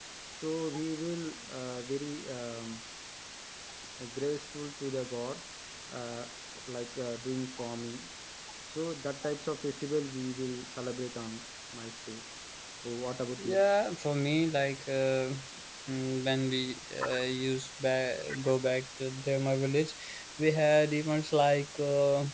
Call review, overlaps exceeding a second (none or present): none